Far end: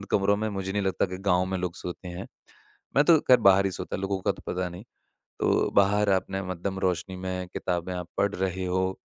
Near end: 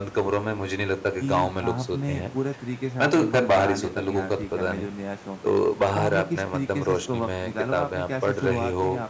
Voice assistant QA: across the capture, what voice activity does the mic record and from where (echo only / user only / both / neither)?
both